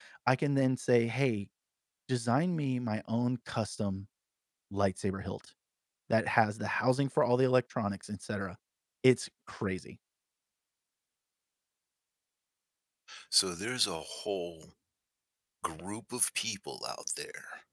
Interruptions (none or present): none